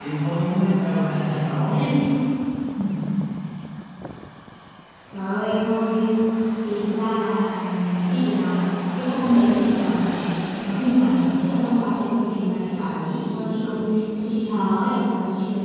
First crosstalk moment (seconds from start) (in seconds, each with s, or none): none